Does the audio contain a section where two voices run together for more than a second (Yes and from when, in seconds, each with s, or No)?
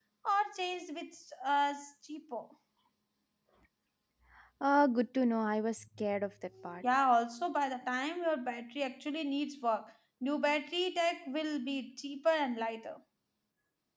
No